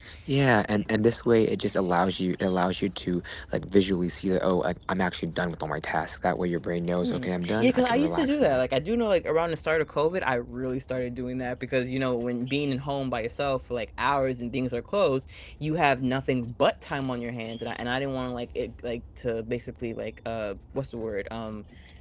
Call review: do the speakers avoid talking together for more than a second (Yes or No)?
No